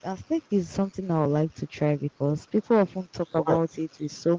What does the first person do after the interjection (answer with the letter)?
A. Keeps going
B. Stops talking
A